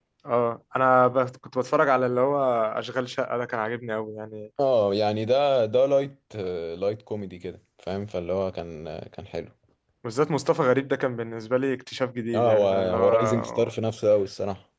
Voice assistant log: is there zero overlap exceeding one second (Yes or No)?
No